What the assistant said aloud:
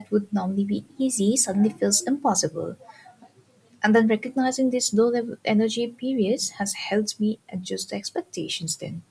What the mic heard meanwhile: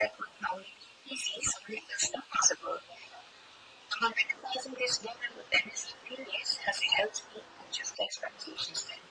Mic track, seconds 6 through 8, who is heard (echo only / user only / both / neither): echo only